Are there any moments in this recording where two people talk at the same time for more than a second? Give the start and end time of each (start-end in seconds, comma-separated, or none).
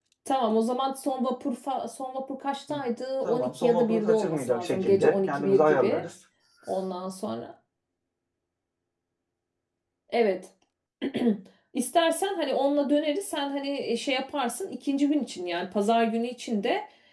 3.2-6.0